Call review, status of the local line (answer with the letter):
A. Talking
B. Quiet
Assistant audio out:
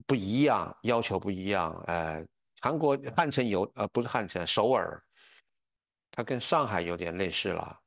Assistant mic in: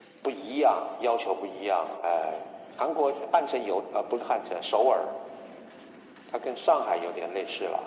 B